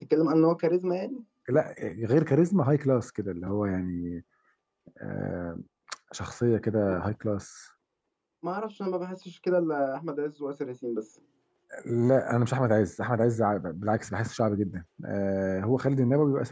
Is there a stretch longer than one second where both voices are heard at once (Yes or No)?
No